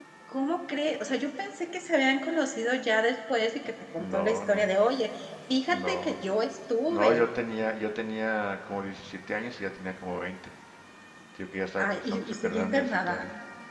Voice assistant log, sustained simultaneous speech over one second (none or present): present